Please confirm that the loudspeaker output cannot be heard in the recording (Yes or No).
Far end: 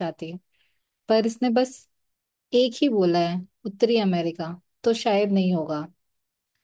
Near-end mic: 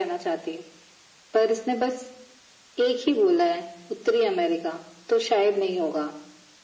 No